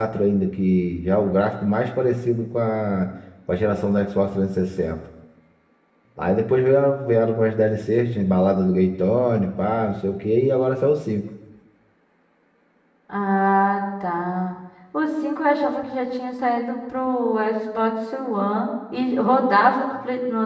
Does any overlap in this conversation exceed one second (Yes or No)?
No